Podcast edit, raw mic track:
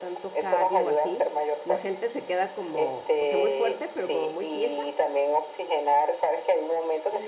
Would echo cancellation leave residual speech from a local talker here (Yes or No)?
Yes